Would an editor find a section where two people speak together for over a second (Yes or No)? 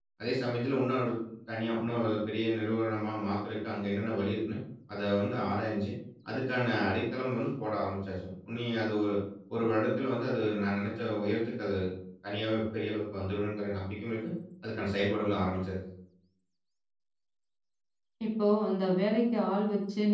No